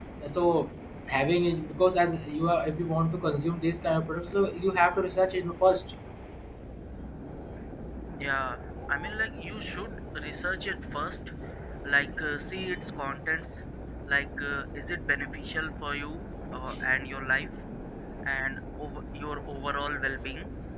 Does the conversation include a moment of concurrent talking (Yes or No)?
No